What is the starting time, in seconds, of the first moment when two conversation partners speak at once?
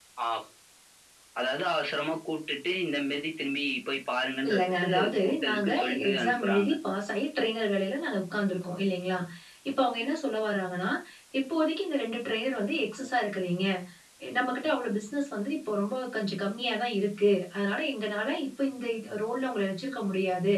4 s

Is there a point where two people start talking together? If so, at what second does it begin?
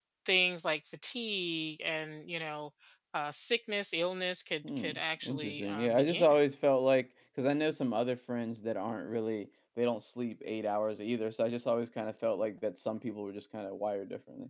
5 s

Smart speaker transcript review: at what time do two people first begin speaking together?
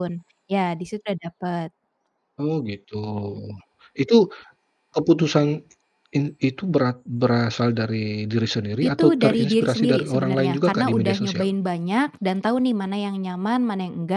9 s

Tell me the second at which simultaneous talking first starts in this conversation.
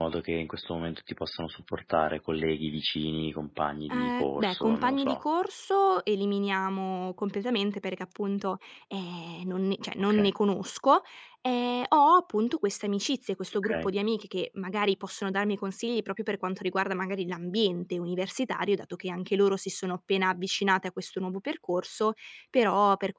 4 s

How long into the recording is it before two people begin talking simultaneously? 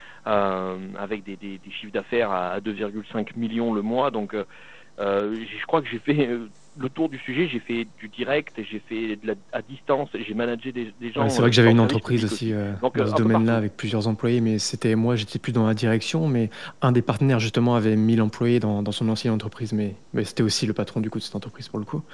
11 s

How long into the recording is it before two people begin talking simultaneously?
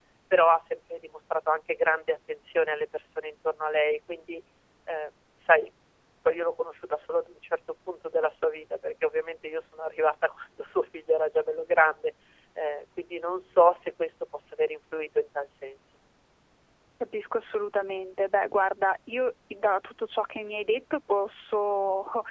none

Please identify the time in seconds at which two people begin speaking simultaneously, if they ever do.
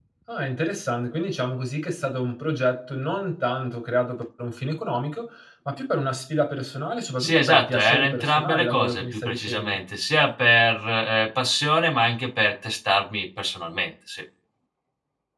7 s

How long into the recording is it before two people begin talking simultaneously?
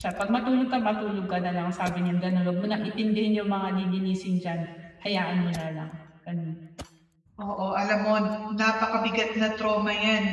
none

